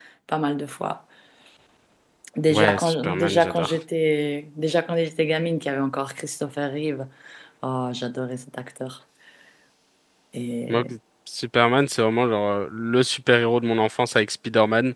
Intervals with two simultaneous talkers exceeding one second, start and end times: 2.5-3.8

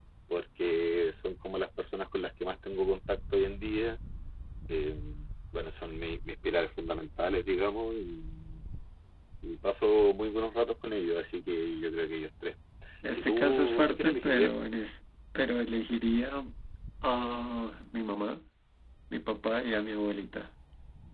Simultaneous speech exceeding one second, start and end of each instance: 13.1-14.5

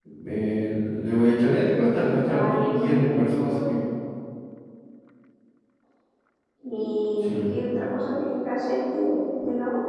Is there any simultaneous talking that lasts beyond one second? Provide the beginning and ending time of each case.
2.2-3.8

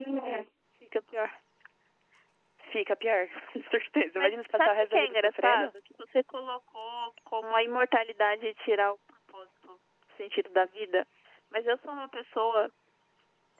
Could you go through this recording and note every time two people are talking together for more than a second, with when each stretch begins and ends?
4.2-5.7

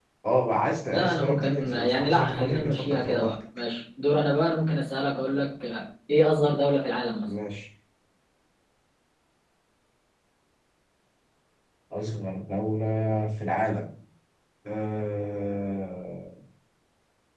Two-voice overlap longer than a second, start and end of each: 0.9-3.3

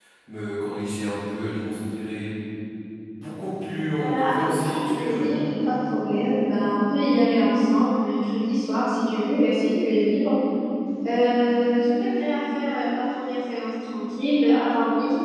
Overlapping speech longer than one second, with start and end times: 4.0-5.2

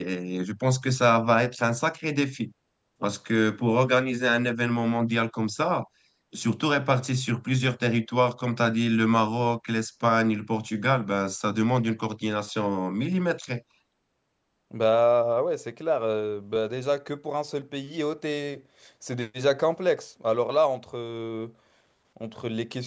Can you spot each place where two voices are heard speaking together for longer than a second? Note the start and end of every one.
none

